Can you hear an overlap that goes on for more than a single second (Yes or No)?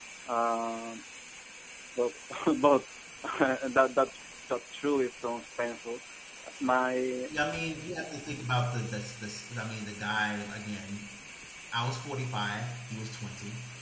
No